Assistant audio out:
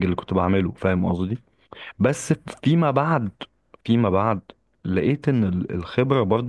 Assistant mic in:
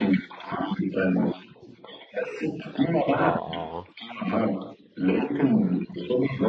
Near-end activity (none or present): present